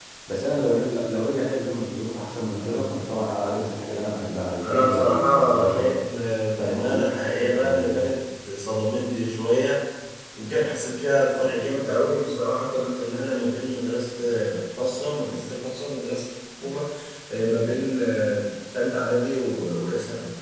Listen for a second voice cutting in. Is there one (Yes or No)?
Yes